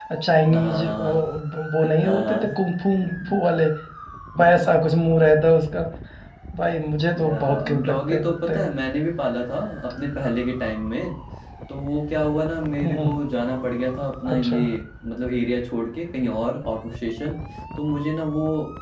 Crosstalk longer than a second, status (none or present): present